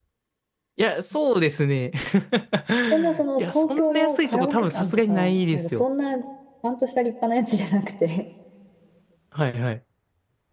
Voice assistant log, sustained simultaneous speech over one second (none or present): present